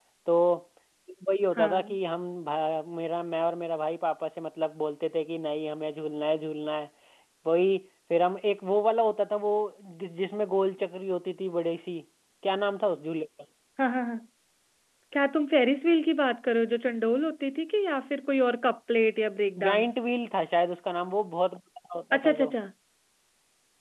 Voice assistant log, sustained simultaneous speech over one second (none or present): none